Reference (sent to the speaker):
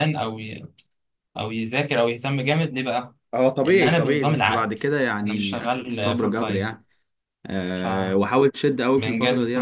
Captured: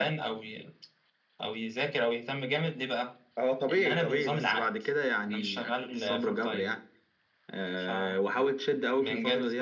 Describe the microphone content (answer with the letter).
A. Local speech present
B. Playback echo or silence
B